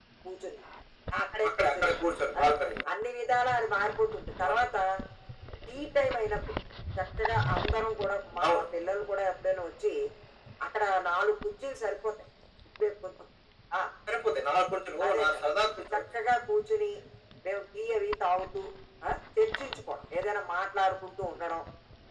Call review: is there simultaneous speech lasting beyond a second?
No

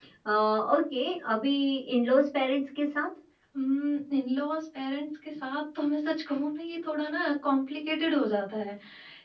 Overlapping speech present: No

